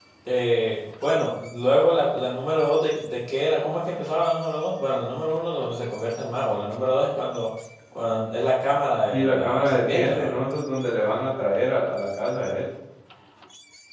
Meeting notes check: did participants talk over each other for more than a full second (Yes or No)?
Yes